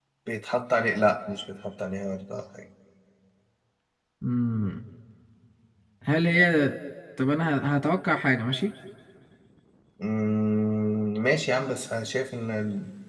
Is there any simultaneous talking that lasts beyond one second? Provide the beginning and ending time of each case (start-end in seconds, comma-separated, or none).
none